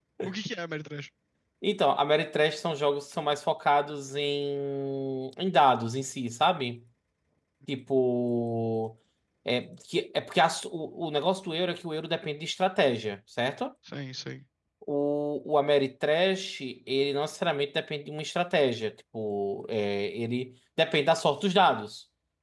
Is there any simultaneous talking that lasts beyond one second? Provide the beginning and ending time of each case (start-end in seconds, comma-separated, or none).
none